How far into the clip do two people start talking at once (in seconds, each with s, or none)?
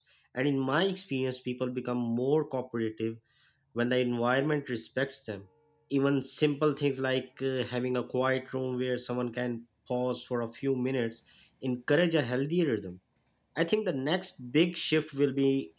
none